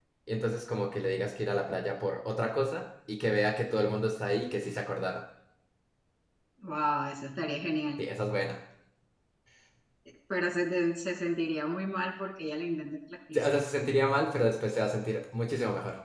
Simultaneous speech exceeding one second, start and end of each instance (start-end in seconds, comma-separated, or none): none